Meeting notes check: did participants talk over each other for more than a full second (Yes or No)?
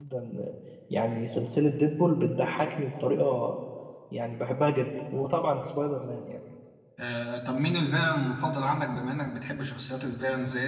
No